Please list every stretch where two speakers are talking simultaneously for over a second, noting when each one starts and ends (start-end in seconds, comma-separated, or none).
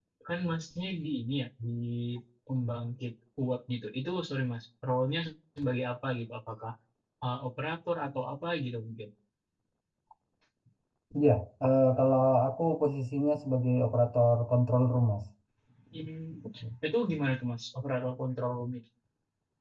none